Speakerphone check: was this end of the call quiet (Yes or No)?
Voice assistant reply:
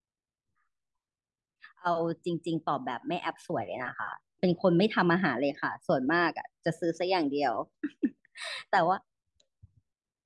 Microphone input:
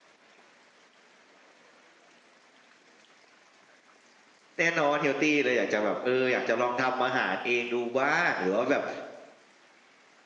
No